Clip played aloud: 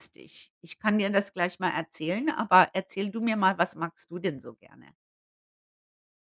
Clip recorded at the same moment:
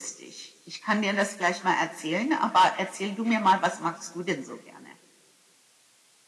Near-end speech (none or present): none